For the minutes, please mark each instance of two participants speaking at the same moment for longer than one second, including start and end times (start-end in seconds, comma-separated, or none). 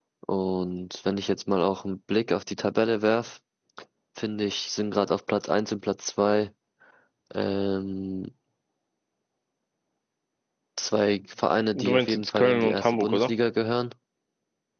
11.7-13.3